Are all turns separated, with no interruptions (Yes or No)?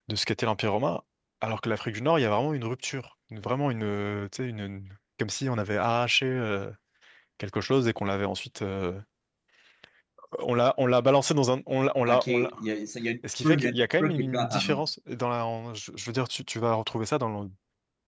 No